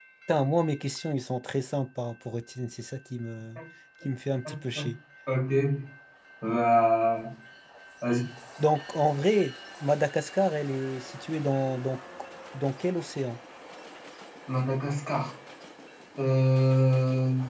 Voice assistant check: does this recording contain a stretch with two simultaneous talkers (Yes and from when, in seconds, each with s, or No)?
No